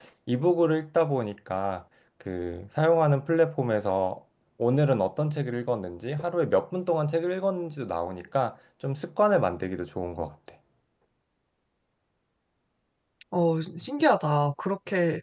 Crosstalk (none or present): none